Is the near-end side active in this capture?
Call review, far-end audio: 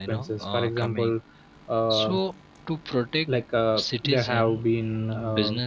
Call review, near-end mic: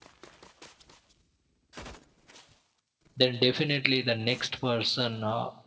Yes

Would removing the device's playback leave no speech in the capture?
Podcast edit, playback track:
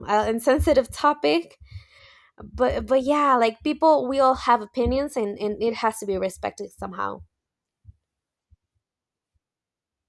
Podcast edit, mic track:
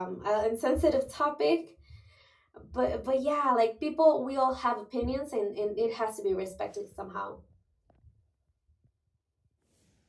Yes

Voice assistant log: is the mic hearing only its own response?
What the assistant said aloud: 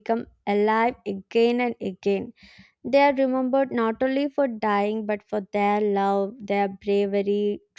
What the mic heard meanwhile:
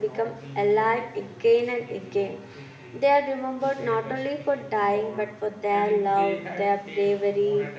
No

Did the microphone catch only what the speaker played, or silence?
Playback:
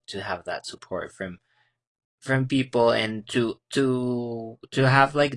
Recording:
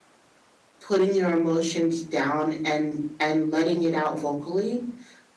No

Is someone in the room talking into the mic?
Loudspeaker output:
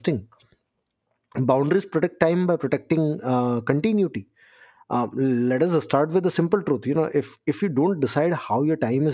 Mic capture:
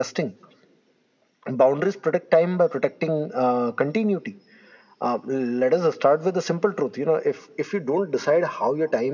No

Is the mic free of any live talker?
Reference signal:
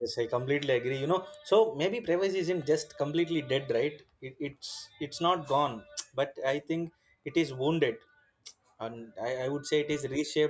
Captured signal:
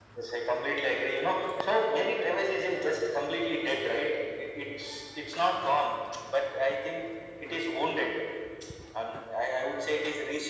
Yes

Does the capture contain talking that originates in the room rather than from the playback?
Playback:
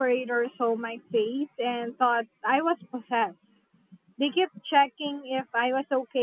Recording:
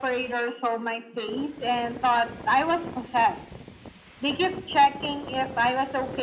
No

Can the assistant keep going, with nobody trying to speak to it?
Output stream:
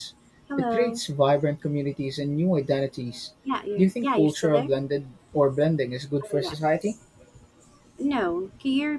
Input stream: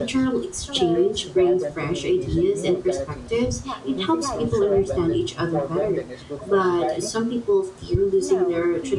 No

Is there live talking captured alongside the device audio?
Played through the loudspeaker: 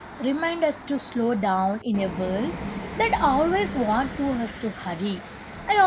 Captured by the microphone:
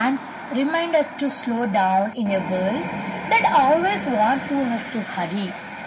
No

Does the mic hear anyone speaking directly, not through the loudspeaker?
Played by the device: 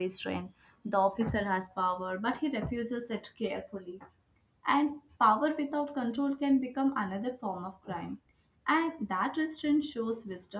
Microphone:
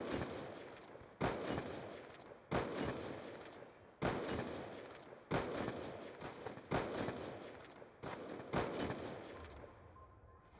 No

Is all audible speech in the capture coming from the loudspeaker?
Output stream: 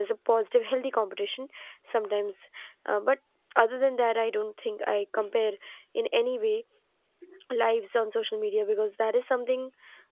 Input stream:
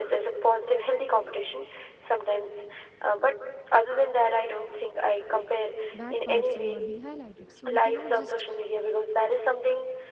No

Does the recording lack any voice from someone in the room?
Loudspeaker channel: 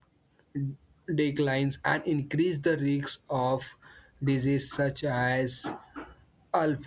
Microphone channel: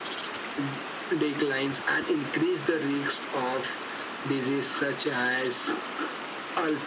Yes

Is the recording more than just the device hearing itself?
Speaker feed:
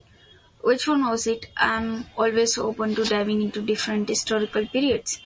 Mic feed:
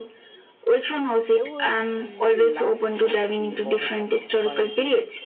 Yes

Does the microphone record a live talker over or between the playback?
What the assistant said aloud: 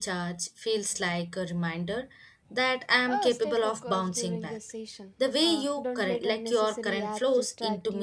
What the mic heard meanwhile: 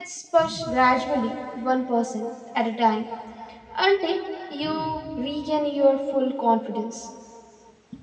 Yes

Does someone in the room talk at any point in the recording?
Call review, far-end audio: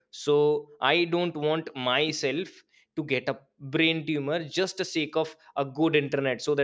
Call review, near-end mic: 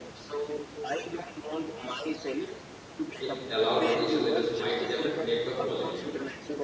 Yes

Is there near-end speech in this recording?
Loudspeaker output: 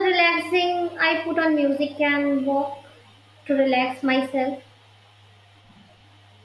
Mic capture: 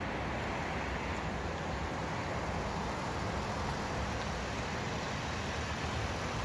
No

